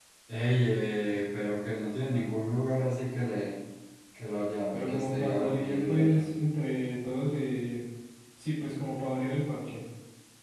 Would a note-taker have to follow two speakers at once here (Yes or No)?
Yes